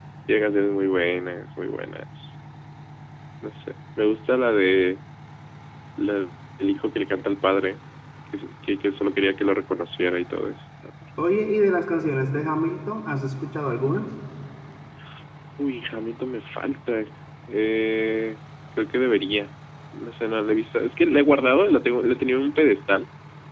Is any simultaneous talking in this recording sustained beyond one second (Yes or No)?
No